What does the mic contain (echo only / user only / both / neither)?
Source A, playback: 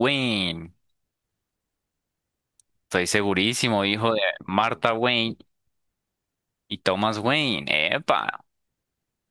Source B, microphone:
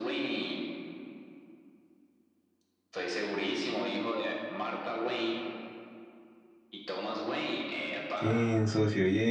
both